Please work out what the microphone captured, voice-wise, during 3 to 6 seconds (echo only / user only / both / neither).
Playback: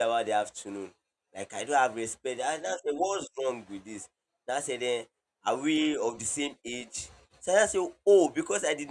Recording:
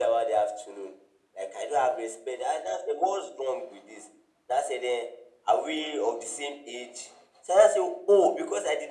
echo only